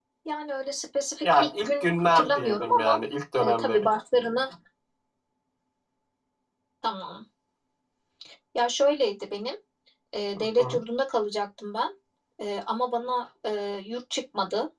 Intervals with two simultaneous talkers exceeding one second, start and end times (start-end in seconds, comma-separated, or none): 1.2-3.0